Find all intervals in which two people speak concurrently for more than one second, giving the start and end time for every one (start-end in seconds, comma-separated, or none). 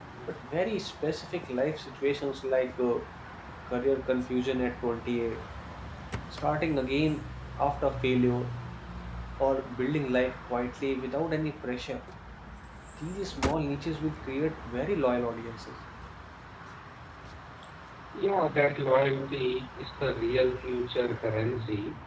none